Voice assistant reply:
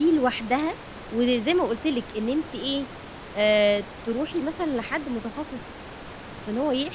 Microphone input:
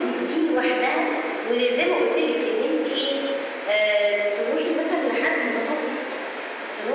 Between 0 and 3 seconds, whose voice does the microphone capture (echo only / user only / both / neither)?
echo only